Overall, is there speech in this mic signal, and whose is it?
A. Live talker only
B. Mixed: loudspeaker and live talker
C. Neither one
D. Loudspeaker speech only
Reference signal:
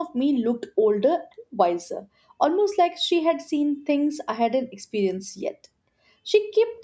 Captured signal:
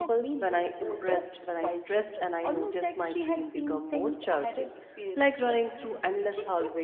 B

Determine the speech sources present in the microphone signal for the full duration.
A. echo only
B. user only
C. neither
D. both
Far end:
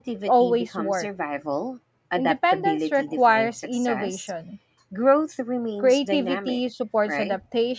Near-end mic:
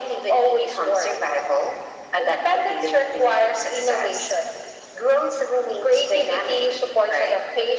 A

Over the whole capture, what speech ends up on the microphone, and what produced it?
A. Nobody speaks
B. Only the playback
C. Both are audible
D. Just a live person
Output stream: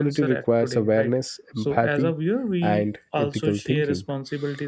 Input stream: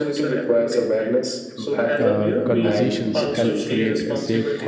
C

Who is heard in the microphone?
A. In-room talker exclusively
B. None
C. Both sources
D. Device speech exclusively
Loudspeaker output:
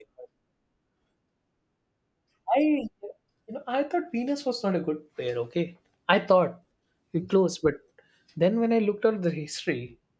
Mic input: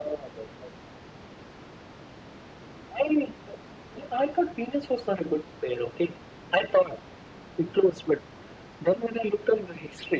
D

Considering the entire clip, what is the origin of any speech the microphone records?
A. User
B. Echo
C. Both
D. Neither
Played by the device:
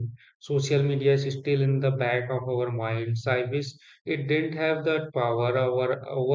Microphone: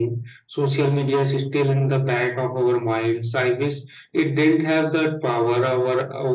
B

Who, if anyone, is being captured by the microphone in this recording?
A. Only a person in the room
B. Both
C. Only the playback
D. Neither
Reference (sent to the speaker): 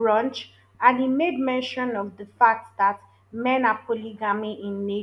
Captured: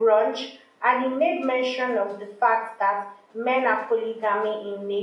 C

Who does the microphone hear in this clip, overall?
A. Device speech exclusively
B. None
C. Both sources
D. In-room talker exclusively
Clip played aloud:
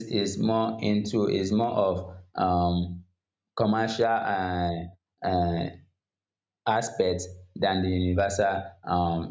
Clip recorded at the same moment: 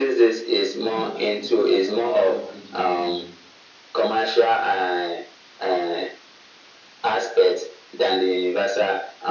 C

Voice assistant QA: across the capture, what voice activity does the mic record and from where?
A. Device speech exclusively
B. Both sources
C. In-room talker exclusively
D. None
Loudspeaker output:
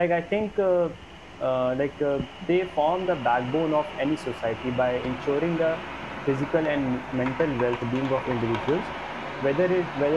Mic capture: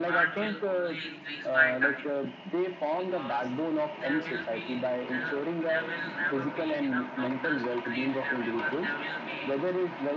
B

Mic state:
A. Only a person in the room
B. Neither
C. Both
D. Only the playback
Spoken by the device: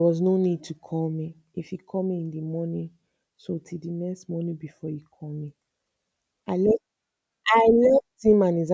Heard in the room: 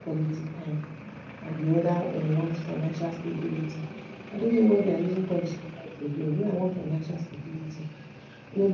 A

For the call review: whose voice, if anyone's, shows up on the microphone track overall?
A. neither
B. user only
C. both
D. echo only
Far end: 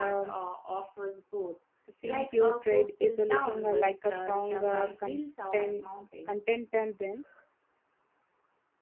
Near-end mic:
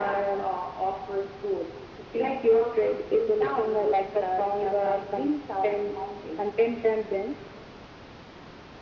D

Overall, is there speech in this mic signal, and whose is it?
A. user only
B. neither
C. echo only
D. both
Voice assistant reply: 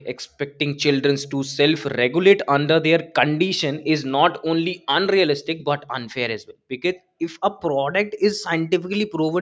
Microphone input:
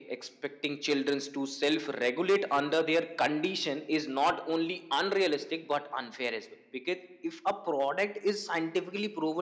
C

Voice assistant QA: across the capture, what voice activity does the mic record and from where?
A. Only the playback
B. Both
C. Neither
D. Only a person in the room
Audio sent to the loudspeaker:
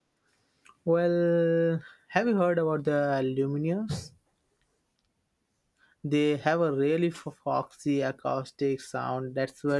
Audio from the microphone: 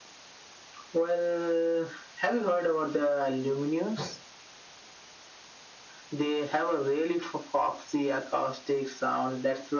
A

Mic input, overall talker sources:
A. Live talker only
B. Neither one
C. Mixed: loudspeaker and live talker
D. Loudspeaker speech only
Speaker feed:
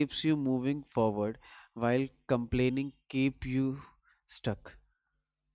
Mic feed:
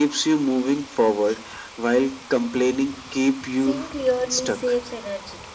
C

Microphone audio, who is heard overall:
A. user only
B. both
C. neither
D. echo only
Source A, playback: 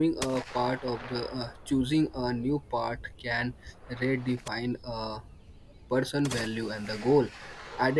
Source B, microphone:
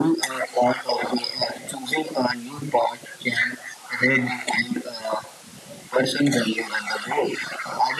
D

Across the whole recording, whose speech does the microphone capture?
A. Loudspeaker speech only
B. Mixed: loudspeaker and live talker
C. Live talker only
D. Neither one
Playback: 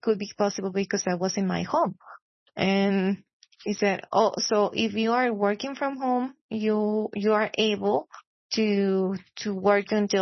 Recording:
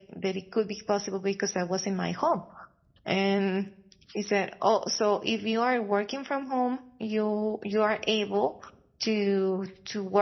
A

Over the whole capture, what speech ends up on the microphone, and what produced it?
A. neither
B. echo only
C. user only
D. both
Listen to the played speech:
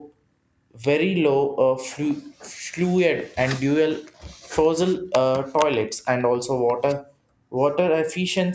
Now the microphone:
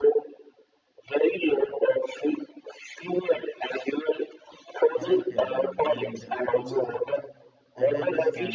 D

